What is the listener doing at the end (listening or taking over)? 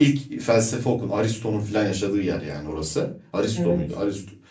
listening